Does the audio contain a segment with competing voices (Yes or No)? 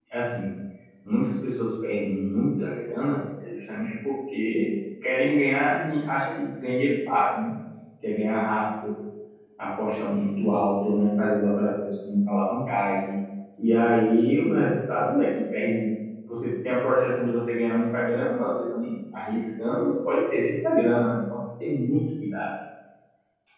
No